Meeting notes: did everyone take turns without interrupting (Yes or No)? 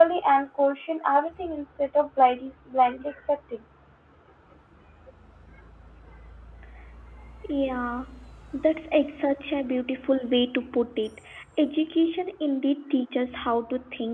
Yes